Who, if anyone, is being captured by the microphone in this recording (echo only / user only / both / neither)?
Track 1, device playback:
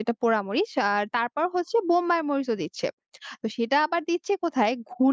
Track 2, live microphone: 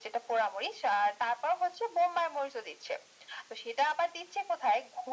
echo only